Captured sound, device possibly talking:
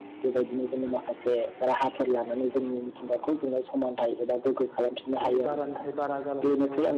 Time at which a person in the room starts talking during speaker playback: 5.2 s

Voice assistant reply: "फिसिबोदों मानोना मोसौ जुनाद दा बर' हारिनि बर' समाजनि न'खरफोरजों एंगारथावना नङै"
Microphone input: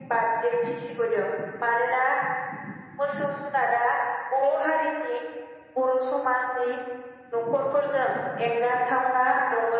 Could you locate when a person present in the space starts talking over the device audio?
none

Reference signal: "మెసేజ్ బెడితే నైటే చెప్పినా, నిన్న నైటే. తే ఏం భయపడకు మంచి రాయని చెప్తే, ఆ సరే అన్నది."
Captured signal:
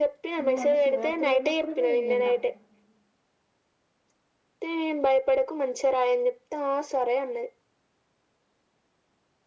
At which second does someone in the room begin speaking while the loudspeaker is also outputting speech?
0.4 s

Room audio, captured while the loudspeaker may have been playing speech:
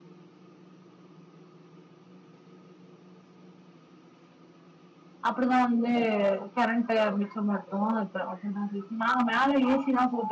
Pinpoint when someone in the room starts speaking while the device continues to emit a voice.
5.3 s

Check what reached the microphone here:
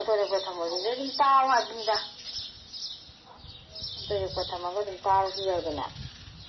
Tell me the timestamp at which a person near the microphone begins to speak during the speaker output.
none

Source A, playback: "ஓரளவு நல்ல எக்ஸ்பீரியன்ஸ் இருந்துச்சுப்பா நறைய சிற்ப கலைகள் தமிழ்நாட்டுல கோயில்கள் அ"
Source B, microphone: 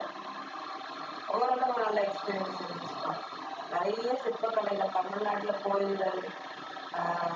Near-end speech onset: none

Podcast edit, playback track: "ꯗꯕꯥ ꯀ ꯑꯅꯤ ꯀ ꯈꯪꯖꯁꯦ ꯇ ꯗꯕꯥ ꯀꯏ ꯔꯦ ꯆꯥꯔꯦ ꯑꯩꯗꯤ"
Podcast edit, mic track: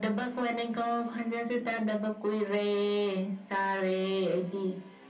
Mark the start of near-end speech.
none

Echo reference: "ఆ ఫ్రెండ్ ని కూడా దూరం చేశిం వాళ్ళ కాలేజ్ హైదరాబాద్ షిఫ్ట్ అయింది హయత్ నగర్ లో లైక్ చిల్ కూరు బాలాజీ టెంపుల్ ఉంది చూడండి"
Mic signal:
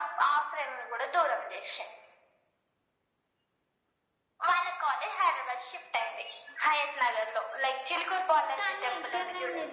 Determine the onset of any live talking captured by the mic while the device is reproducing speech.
8.6 s

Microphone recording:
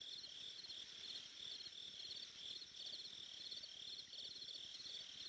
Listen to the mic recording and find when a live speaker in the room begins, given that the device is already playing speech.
none

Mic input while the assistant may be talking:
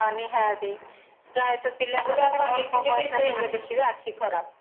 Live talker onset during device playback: 2.0 s

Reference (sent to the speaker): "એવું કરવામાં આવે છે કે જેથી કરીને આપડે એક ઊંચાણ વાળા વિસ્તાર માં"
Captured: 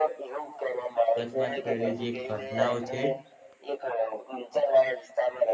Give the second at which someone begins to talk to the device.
1.2 s

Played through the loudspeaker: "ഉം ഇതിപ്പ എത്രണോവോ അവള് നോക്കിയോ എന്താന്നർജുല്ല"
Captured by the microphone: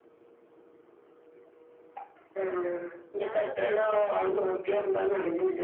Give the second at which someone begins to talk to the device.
3.2 s

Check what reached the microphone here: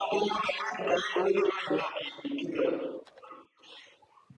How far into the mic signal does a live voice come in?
none

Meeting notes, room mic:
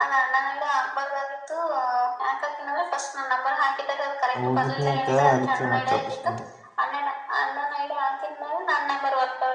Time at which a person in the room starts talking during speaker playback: 4.4 s

